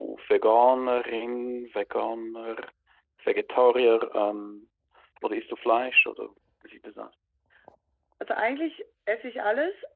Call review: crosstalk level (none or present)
none